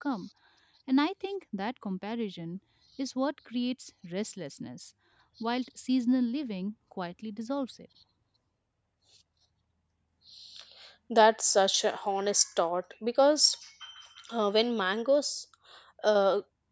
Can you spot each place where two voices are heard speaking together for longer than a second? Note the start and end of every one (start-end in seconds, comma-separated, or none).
none